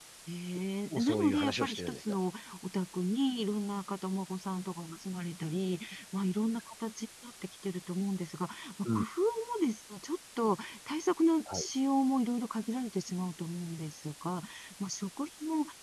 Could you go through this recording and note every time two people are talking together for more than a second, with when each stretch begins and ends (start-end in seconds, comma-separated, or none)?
1.0-2.2